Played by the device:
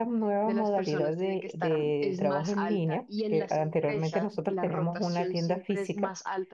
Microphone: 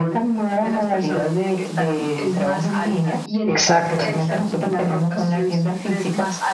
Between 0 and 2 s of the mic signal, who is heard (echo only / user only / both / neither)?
echo only